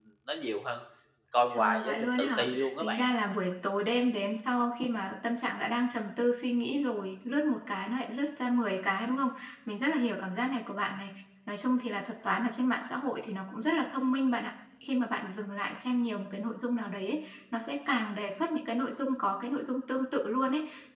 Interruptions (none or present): present